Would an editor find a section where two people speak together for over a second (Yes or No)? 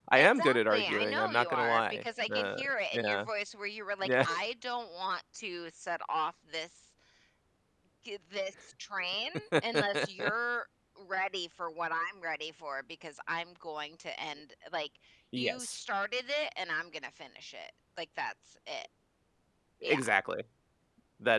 Yes